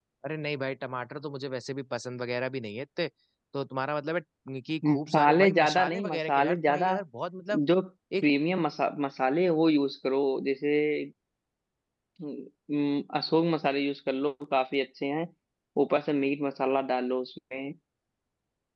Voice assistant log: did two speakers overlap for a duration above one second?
Yes, from 4.9 s

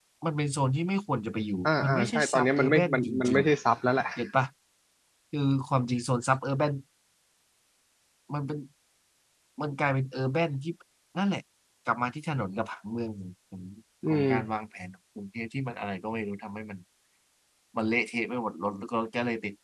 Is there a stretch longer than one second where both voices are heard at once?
Yes, from 1.6 s

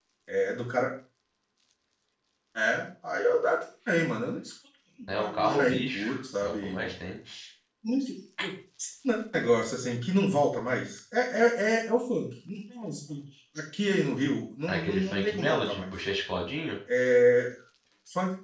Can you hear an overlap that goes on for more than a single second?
Yes, from 5.2 s

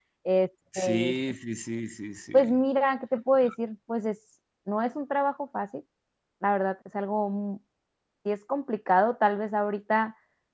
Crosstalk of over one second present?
No

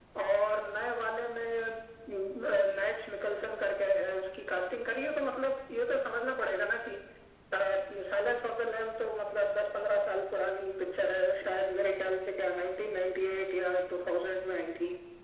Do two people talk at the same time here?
No

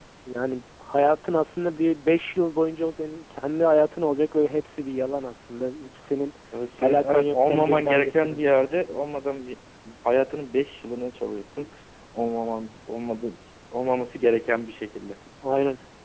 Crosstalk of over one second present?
Yes, from 6.8 s

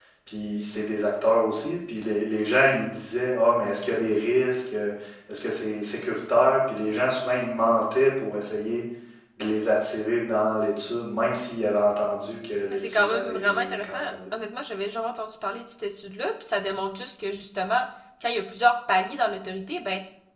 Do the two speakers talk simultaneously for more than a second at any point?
Yes, from 12.7 s

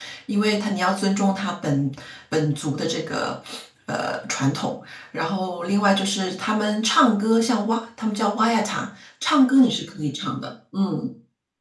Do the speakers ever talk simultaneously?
No

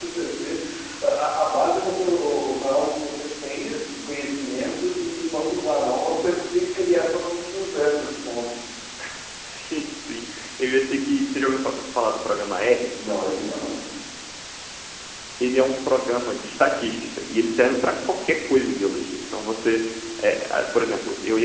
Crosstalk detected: No

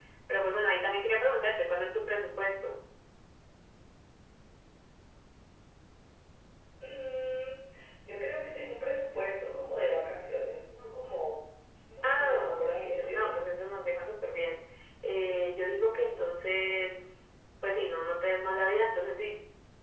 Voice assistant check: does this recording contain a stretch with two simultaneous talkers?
Yes, from 12.0 s

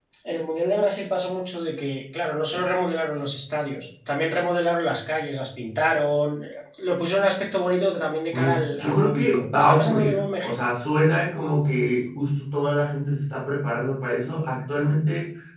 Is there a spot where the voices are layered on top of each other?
Yes, from 8.3 s

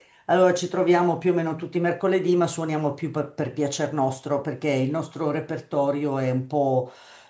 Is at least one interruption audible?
No

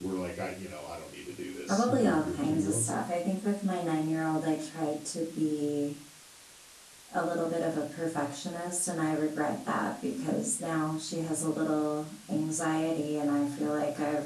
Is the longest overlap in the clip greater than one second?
Yes, from 1.7 s

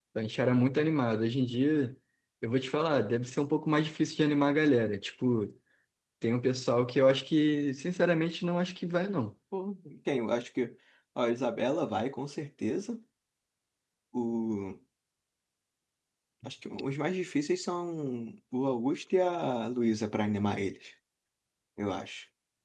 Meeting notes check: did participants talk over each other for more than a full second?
No

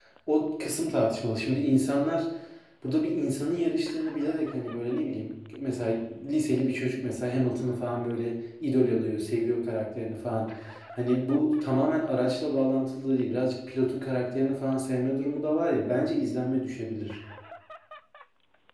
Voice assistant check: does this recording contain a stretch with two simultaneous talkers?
No

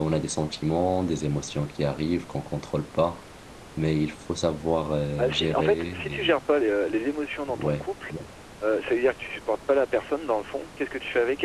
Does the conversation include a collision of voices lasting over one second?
Yes, from 5.2 s

